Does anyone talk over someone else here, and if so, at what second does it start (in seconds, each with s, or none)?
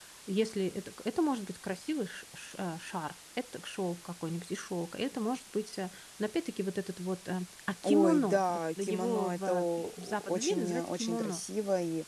7.8 s